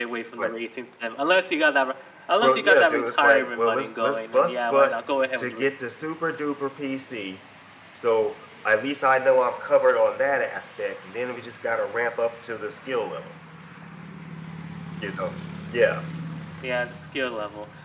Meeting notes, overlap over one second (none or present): present